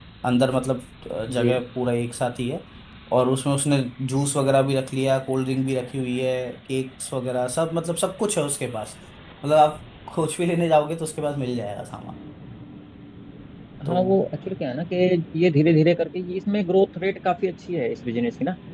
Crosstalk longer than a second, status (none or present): none